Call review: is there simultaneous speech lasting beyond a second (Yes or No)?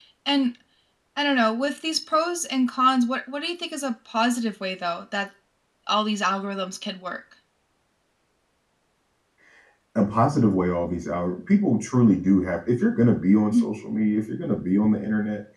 No